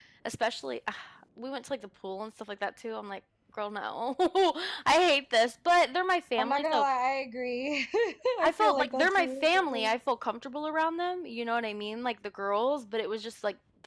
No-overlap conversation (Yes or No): No